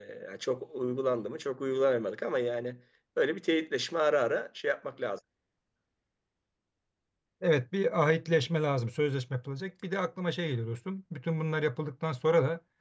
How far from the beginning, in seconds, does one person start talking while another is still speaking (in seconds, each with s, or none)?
none